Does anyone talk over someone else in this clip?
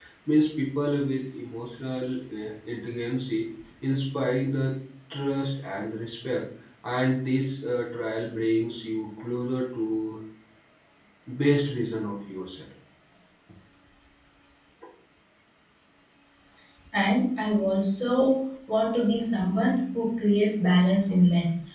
No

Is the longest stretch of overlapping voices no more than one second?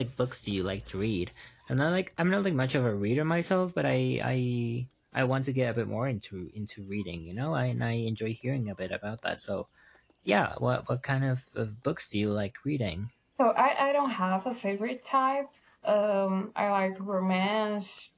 Yes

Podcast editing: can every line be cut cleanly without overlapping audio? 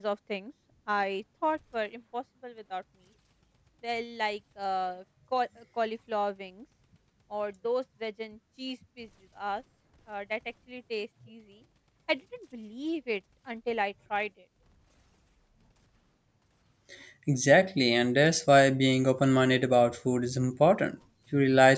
Yes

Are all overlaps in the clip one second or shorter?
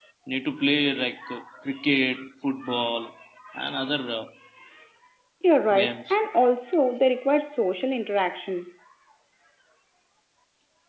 Yes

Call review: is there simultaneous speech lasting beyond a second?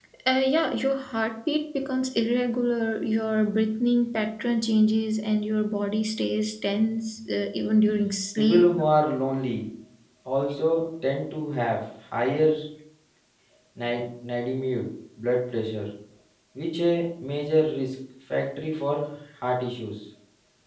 No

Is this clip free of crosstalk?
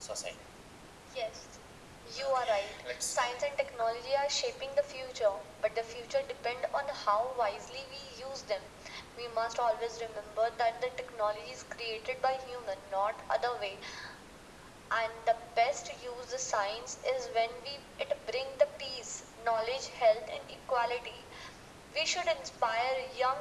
No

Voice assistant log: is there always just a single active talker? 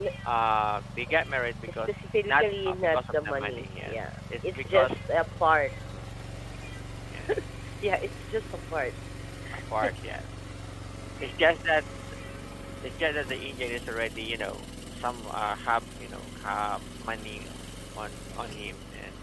No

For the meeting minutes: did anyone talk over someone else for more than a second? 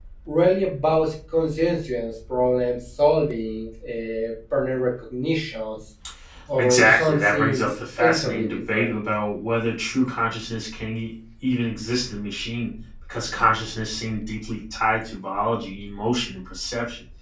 Yes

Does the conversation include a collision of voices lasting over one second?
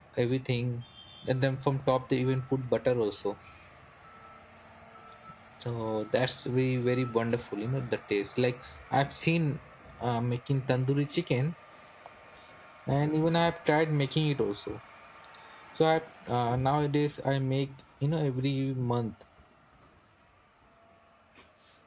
No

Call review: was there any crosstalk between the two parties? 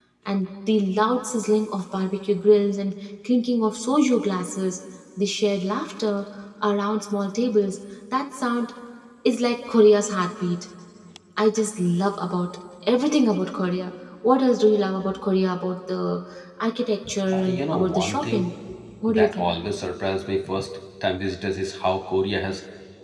Yes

